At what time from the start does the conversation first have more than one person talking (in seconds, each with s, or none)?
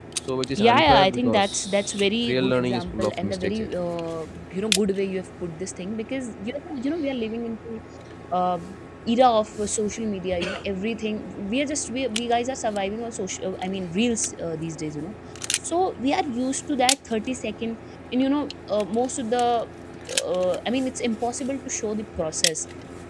0.5 s